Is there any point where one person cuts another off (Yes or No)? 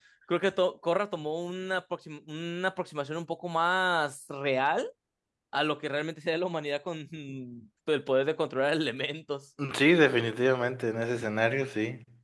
No